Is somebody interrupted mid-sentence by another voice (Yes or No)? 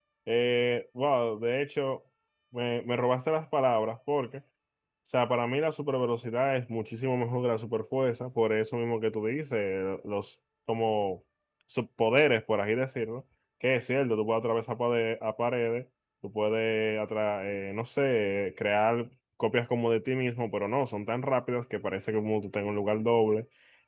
No